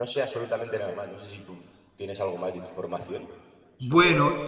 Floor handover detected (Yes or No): Yes